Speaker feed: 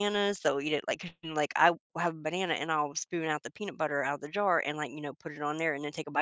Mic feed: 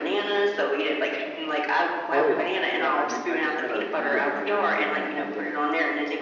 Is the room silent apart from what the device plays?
No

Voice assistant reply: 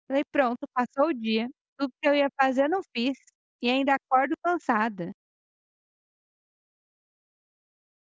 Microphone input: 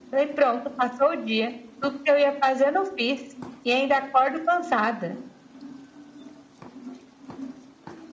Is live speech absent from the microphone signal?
Yes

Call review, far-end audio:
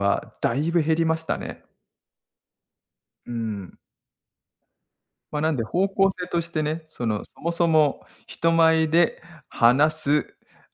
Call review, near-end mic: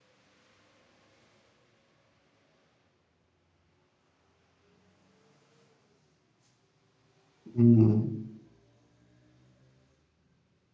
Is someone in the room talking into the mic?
Yes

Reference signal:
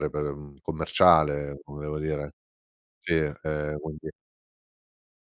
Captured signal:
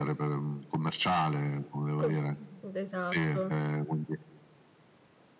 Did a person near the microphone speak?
Yes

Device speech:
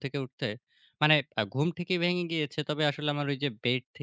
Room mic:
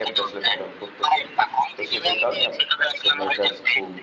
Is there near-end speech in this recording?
Yes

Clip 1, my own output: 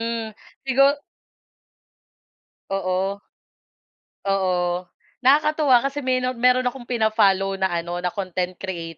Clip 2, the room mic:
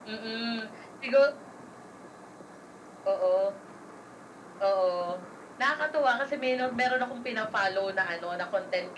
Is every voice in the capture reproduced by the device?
Yes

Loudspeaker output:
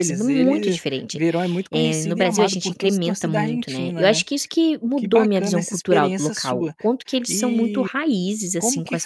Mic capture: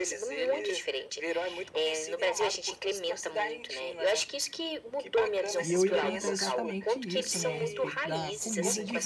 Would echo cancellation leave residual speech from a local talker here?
Yes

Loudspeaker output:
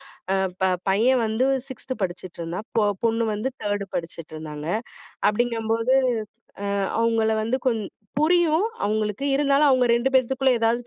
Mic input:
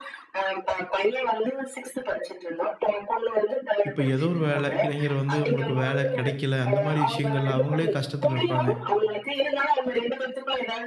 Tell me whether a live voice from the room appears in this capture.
Yes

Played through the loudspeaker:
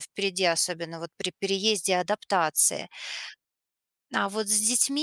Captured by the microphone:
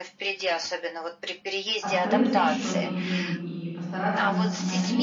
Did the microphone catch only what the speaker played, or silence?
No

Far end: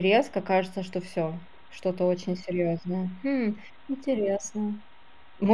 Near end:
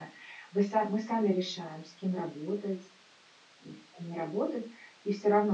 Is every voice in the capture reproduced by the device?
No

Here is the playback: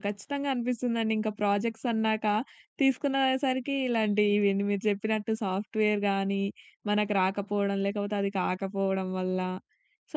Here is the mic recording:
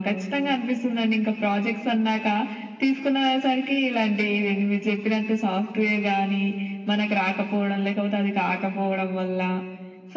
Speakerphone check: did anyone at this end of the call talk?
No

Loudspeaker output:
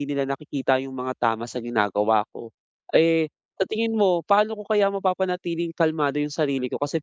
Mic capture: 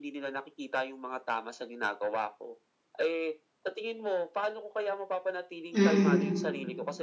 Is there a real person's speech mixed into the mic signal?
Yes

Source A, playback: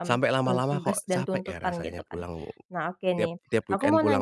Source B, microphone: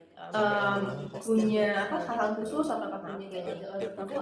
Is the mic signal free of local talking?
No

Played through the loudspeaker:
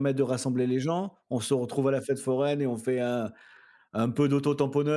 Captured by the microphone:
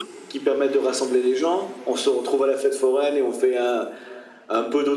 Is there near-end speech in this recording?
No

